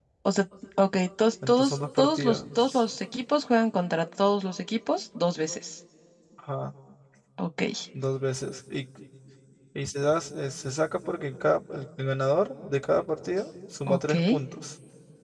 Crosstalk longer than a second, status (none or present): present